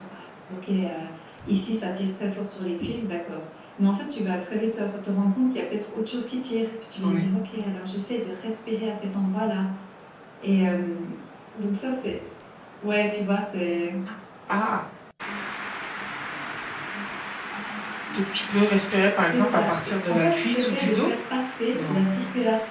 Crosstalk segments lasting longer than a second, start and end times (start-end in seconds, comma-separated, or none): 19.2-21.1